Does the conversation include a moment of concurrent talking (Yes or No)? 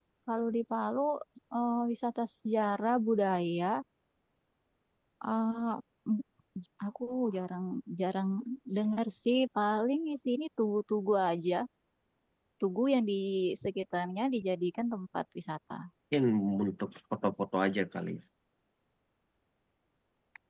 No